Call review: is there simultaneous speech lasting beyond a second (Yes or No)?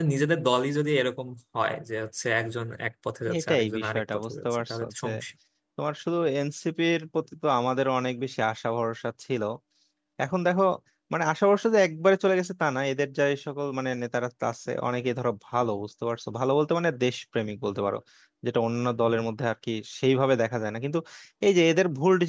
Yes